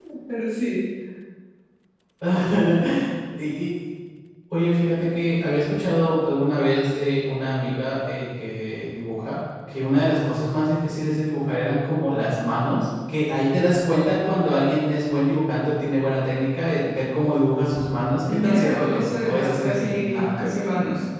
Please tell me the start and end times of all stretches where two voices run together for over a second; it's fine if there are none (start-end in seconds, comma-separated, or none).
18.3-20.6